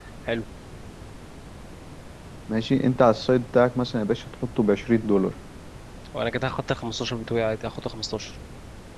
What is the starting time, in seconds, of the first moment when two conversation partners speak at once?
none

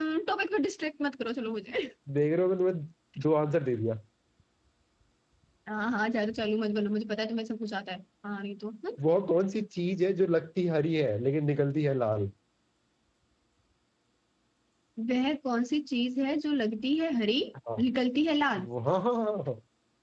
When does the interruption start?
none

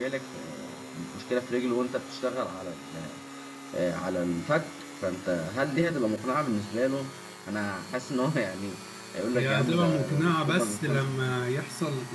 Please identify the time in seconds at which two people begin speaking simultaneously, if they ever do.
9 s

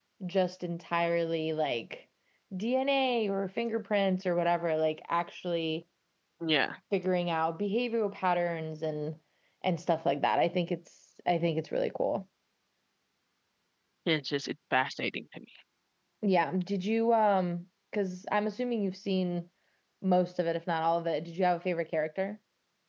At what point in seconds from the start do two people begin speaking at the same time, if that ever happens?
none

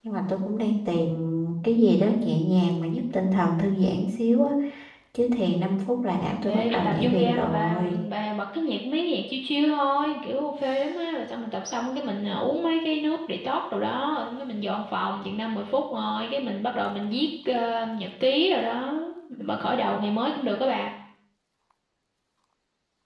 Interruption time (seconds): 6 s

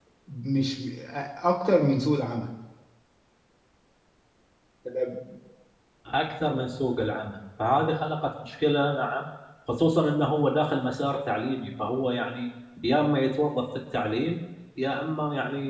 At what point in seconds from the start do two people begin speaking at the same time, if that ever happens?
none

